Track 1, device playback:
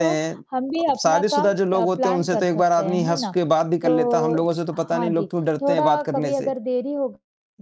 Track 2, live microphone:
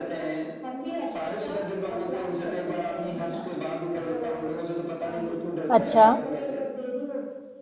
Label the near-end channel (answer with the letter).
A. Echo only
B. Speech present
B